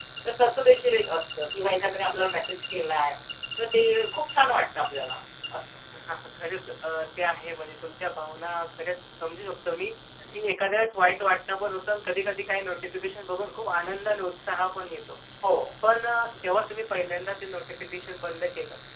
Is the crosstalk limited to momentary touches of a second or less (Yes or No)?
Yes